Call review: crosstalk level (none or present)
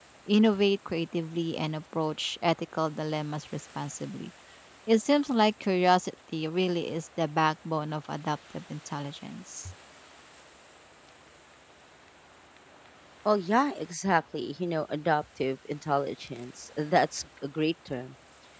none